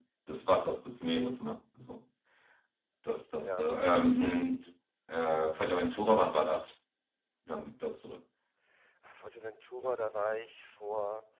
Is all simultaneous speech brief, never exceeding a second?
Yes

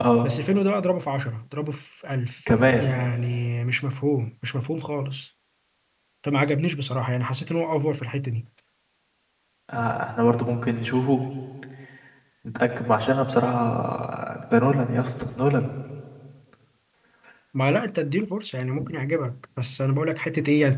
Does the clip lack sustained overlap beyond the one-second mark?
Yes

